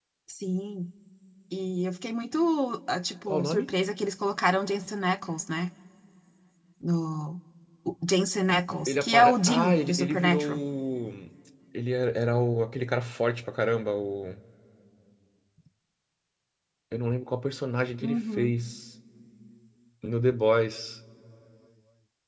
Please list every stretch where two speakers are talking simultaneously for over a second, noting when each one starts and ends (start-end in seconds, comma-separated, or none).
8.9-10.4